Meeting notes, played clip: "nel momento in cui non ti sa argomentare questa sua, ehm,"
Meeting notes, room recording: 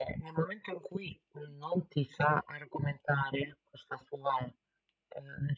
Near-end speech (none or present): none